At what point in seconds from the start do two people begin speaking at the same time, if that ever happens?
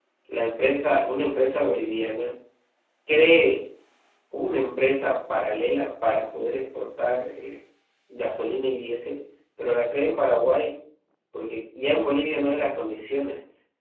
none

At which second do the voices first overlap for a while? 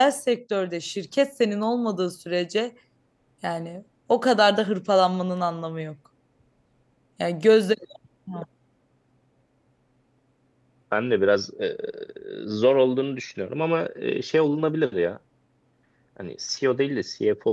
none

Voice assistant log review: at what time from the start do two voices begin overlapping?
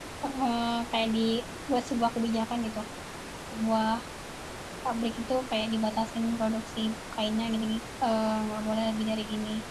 none

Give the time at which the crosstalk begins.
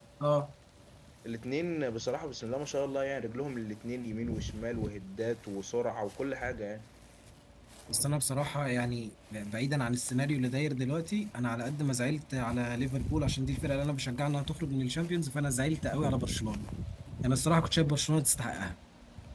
none

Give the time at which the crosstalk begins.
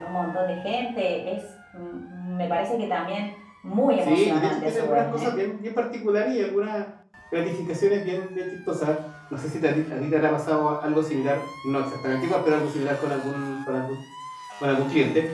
4.0 s

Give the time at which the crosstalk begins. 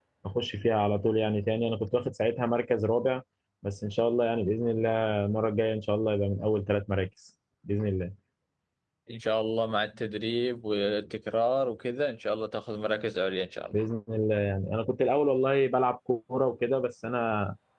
none

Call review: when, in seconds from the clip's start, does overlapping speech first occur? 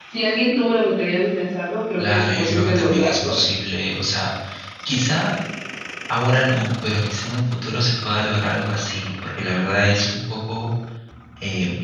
2.0 s

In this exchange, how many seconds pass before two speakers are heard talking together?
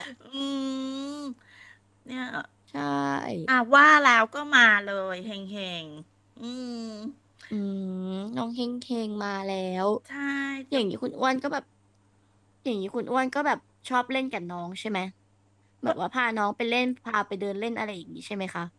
none

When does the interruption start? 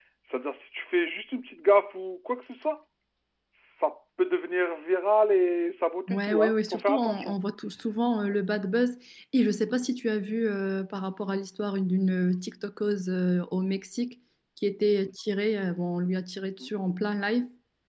6.1 s

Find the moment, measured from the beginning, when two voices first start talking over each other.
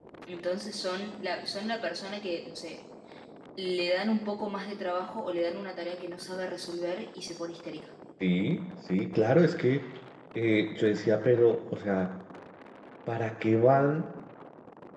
none

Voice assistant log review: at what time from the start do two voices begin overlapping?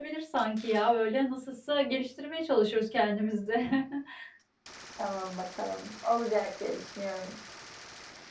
none

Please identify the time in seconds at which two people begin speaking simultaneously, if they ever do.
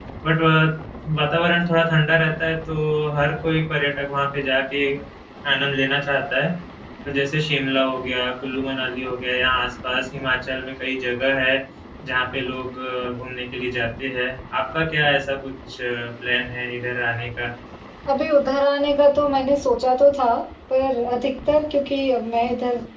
none

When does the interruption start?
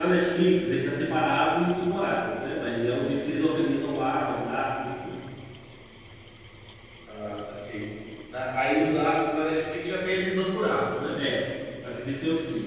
none

